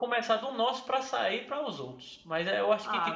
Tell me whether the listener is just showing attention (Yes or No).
No